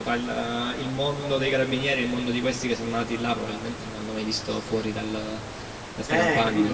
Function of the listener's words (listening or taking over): taking over